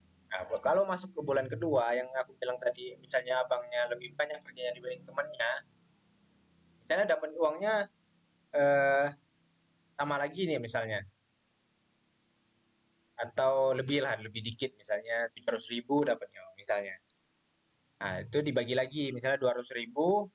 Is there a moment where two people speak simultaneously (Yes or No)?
No